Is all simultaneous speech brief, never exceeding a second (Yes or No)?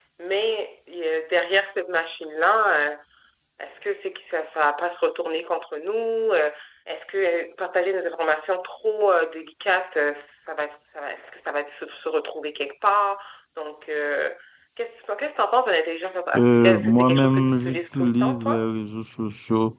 No